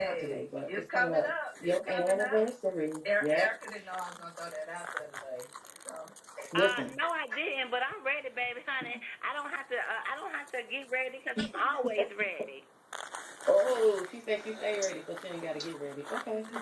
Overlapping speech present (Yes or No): Yes